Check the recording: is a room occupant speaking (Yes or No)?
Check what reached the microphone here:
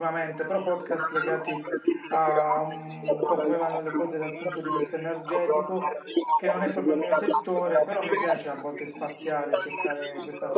Yes